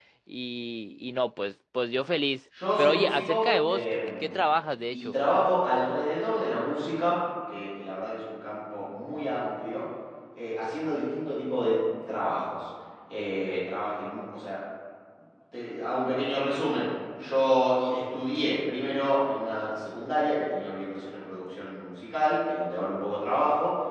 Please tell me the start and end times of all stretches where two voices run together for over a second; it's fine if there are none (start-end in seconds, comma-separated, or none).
2.8-4.4